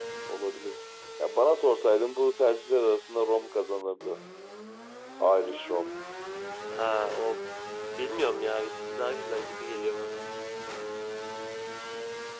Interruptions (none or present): none